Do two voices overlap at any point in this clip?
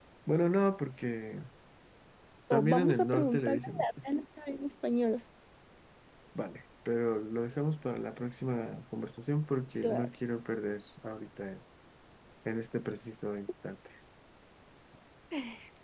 Yes, from 2.5 s

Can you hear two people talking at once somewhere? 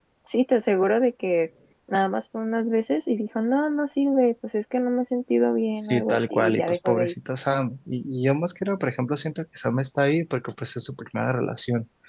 Yes, from 5.9 s

